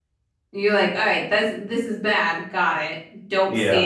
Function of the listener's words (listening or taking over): listening